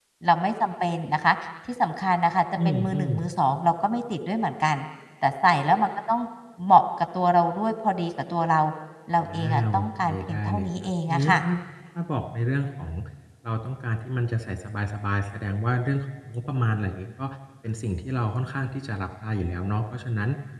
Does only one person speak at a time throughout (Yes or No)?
No